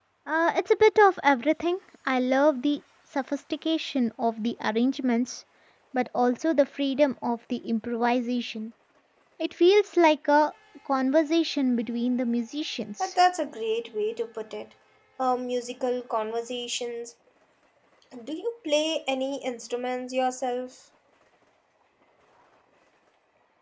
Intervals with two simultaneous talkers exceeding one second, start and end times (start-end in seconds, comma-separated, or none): none